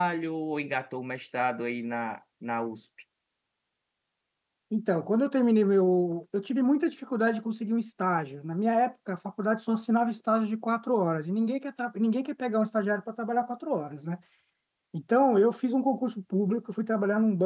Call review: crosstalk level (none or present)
none